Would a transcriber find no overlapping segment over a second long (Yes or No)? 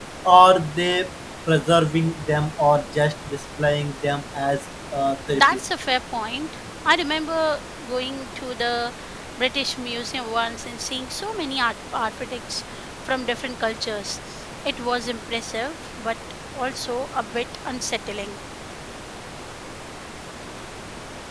Yes